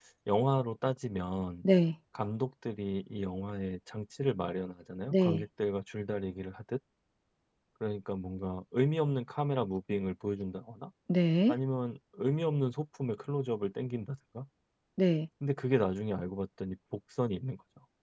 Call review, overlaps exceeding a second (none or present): none